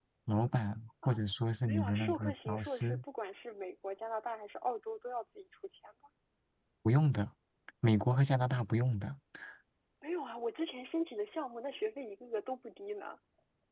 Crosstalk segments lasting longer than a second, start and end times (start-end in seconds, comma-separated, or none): 1.7-3.0